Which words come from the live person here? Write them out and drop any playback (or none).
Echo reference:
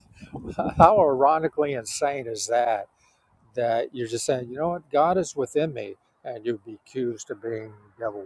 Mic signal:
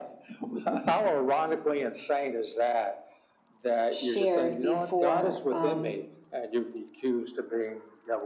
shared before um